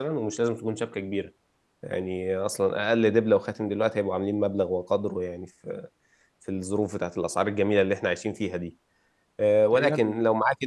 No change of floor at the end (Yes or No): Yes